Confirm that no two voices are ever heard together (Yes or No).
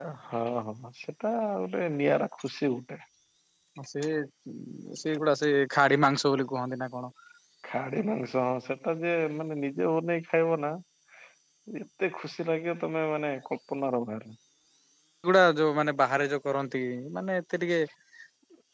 Yes